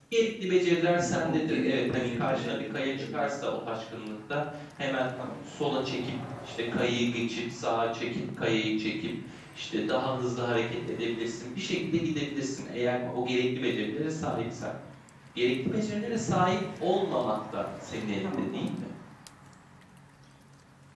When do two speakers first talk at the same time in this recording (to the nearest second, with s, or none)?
1 s